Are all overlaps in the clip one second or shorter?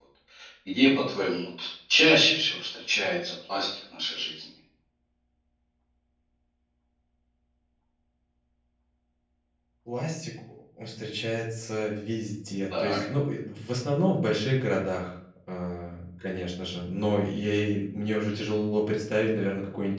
Yes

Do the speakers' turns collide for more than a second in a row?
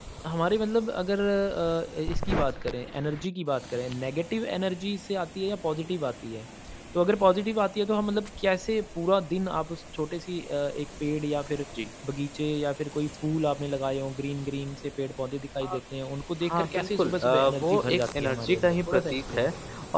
Yes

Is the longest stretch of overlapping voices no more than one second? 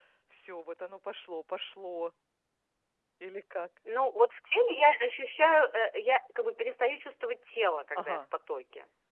Yes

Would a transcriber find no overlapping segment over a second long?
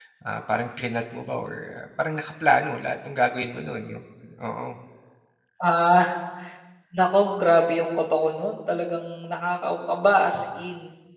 Yes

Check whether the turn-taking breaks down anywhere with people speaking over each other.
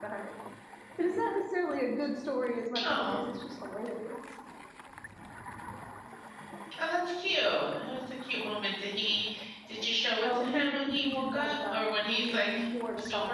Yes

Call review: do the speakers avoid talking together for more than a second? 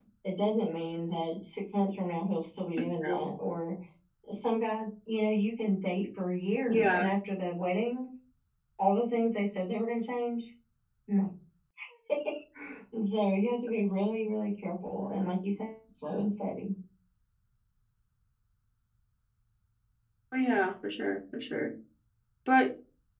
Yes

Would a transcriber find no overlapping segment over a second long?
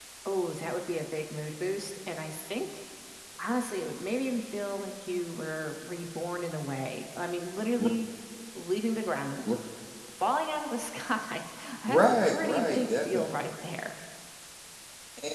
No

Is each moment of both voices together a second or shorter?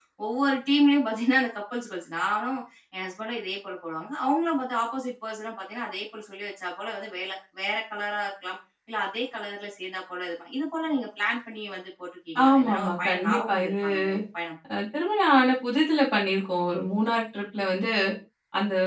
No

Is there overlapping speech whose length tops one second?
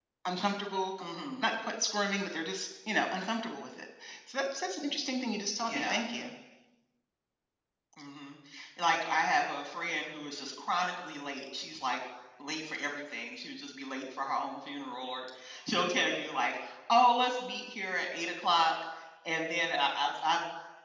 No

